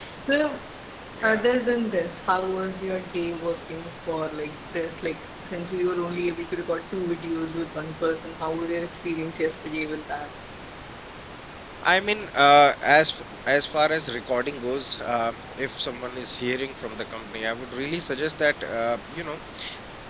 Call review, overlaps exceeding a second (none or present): none